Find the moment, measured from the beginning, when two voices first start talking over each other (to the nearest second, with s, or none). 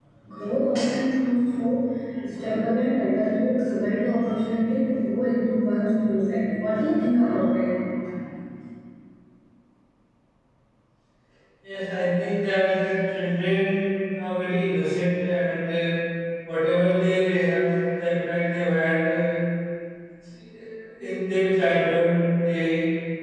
none